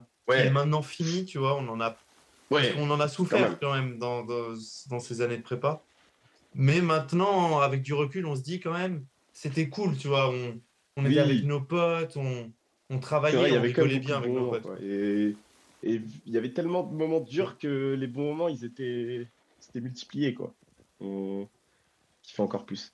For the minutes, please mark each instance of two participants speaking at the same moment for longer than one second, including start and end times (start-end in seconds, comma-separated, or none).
13.3-14.6